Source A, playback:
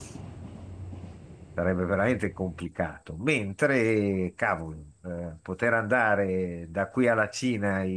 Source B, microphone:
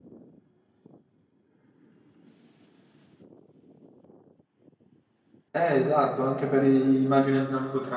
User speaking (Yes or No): Yes